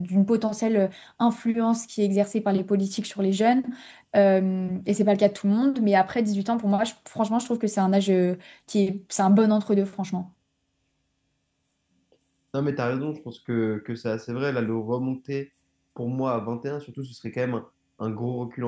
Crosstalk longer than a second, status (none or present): none